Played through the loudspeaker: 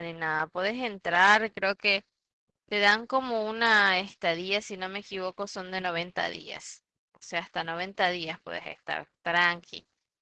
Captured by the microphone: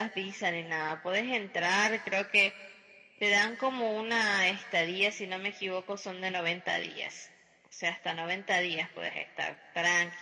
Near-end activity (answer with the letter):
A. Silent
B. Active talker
A